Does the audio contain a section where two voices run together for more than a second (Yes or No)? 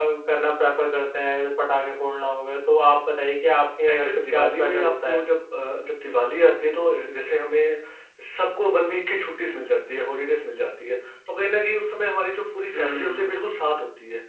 Yes